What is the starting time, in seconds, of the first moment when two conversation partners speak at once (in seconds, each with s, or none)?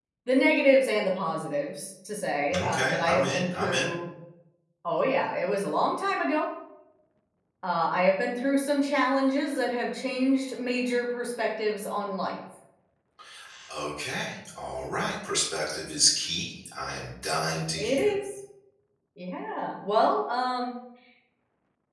2.6 s